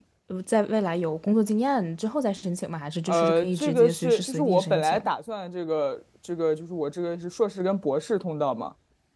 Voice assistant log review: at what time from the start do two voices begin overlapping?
3 s

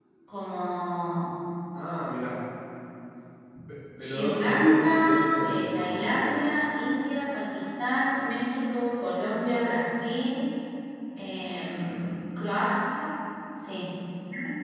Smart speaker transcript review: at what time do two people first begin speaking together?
4 s

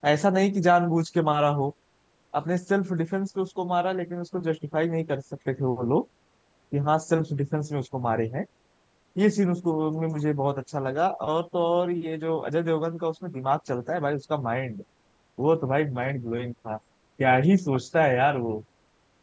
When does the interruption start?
none

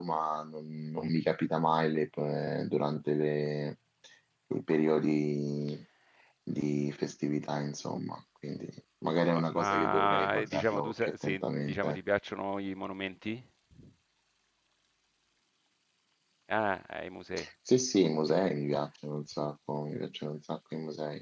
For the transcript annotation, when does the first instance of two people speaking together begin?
9 s

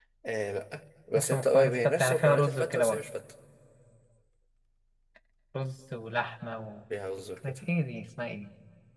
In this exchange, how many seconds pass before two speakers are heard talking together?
1 s

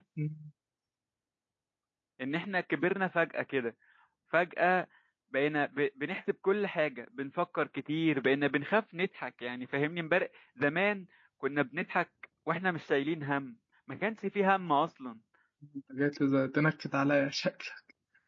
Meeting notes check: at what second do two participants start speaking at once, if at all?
none

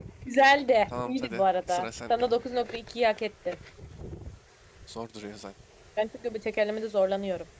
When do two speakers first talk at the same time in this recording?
1 s

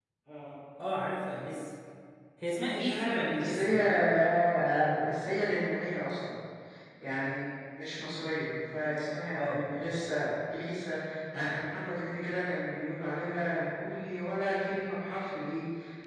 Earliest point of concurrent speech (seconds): 2 s

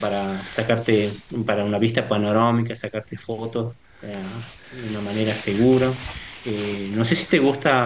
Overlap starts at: none

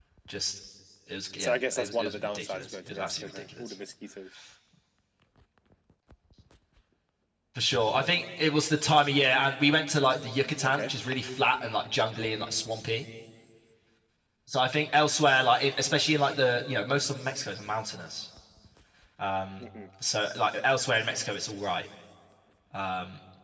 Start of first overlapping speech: 1 s

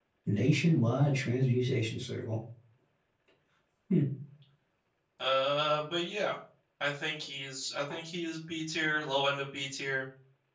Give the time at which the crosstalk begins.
none

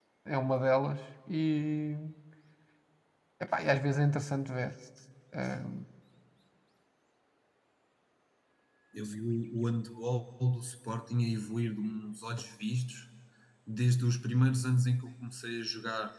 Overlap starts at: none

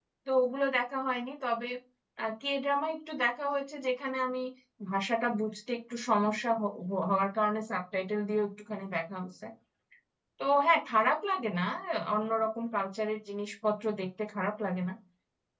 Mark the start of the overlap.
none

